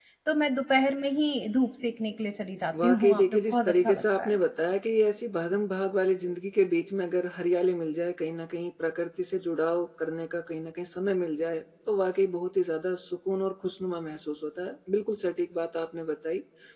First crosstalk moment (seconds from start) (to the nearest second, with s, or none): 3 s